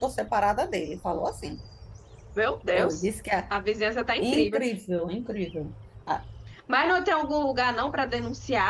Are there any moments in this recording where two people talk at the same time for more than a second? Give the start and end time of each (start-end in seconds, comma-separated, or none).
none